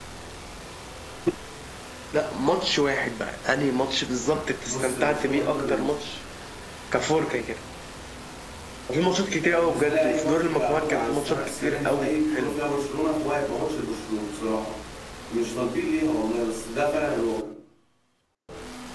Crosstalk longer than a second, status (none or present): present